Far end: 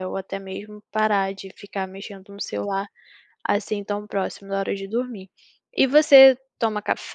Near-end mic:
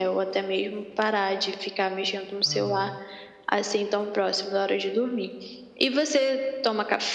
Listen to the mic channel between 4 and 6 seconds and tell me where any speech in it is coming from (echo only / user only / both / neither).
echo only